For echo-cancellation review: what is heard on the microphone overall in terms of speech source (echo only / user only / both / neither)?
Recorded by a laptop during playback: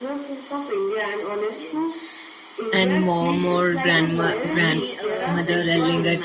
both